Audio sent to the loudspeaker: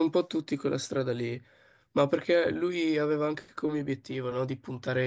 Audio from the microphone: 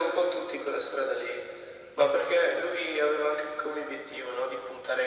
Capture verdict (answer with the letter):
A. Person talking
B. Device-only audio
B